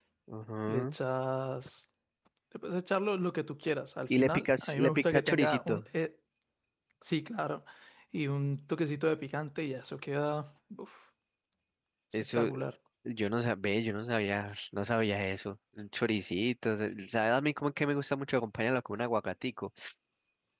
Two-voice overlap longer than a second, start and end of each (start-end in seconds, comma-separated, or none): 4.1-5.8